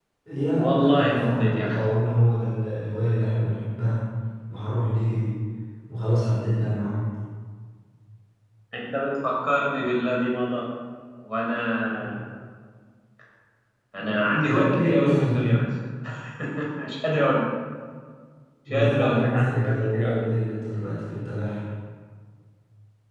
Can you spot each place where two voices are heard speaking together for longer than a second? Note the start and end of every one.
0.6-1.8, 14.2-15.6, 18.7-20.4

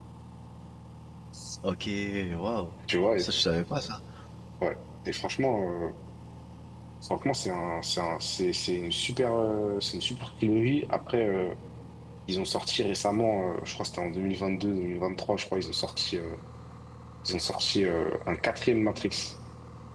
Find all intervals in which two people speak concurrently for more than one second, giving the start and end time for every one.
none

